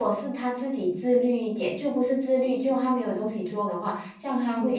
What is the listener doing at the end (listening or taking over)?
taking over